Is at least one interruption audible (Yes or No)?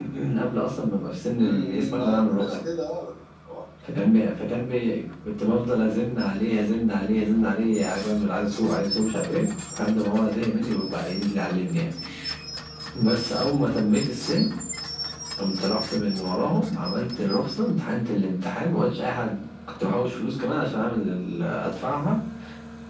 Yes